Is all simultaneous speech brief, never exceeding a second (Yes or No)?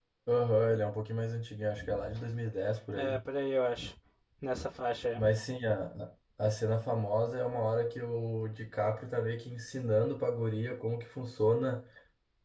Yes